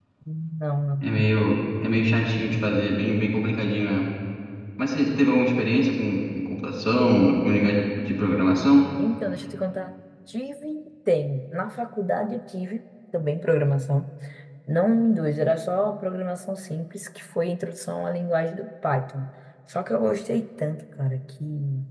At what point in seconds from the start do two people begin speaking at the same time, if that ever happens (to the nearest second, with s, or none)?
none